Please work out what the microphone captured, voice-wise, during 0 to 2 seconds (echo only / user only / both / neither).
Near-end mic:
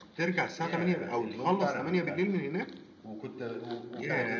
both